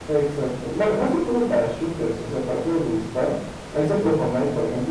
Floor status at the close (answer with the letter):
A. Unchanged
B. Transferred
A